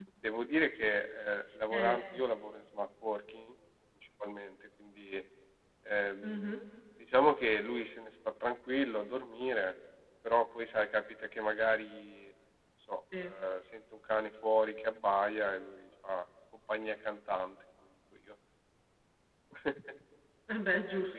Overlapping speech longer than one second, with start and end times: none

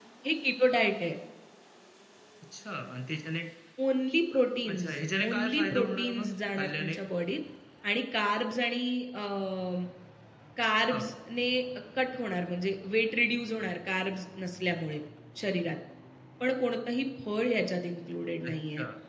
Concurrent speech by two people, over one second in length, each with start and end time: 5.3-7.0

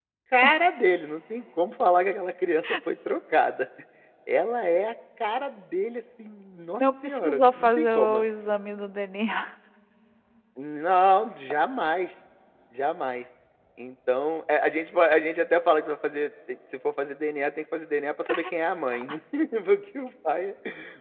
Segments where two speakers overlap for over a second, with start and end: 6.8-8.2

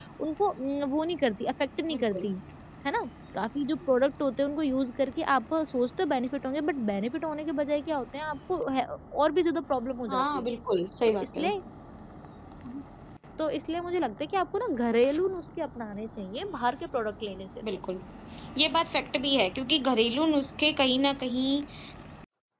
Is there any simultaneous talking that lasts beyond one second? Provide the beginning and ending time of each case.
none

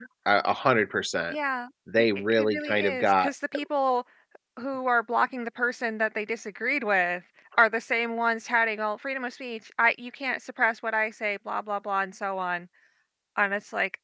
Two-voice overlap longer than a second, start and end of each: 2.0-3.3

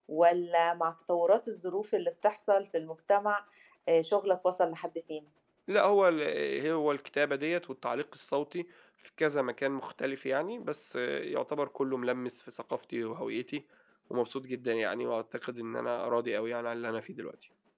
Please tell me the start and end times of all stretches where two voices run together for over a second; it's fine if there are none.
none

